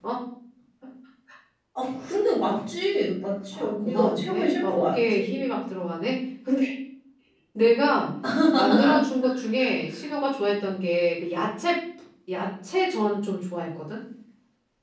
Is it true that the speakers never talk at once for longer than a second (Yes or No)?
No